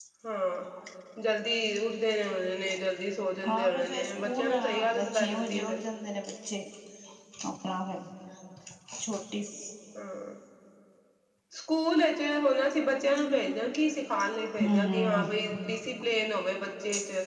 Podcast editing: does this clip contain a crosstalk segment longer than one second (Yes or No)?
Yes